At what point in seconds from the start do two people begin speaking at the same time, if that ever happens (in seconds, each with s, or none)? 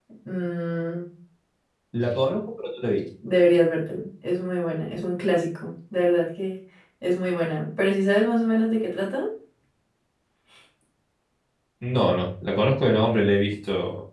none